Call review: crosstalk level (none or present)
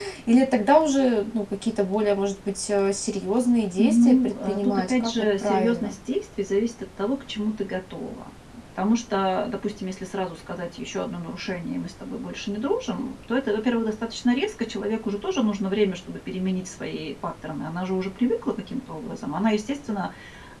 present